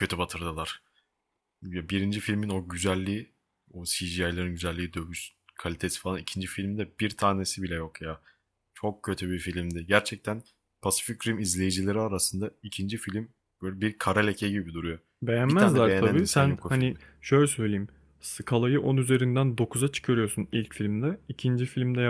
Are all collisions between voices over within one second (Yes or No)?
No